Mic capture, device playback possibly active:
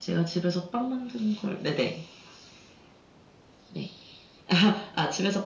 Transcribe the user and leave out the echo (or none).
none